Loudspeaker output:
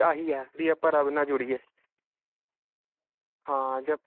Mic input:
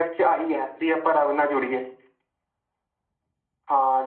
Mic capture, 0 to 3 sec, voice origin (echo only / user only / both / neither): echo only